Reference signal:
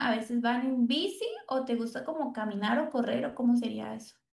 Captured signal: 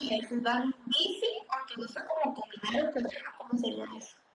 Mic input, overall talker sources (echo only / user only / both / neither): echo only